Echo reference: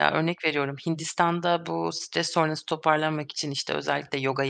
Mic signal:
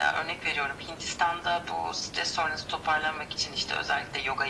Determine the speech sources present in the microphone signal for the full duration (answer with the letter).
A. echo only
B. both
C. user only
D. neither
A